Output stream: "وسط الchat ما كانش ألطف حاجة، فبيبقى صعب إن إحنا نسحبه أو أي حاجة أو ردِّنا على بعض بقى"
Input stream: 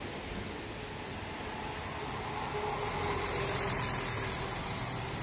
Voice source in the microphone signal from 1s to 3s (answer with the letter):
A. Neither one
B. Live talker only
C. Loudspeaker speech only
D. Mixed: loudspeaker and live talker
A